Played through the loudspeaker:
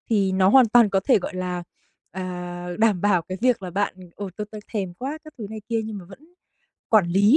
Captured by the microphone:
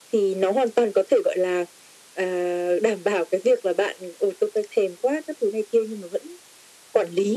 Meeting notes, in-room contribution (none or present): none